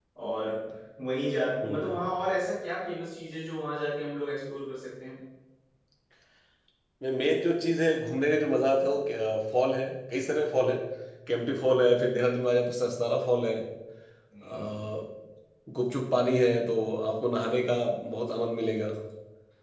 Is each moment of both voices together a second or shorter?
Yes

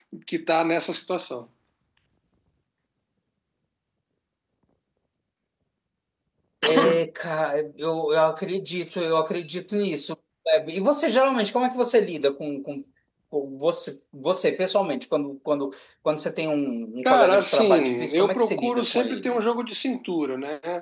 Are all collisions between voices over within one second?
No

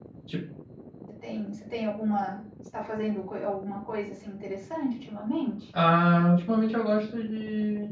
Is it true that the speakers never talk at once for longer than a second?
Yes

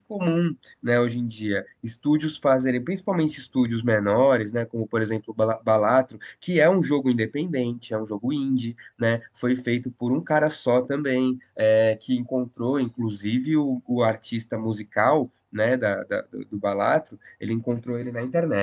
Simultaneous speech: No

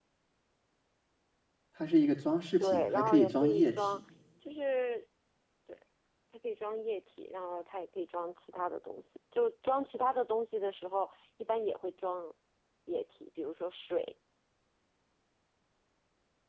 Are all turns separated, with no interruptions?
No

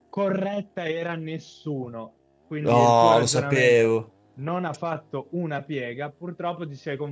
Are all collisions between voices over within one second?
No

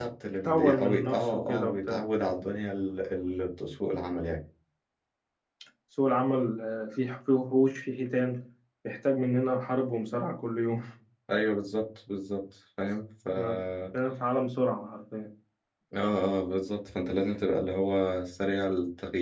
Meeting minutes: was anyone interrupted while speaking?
Yes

